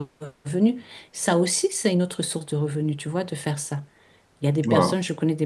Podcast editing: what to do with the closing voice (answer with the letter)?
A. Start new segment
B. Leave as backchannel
B